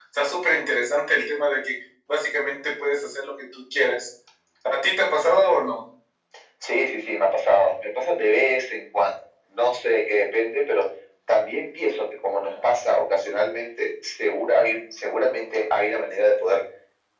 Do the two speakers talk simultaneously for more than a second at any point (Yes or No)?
No